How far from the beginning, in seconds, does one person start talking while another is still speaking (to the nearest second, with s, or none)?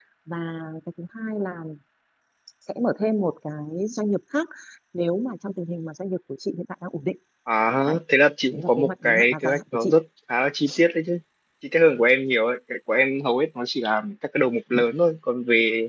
9 s